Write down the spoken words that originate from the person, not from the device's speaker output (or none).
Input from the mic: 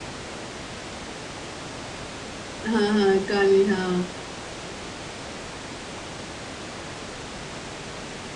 हाँ हाँ गाने हाँ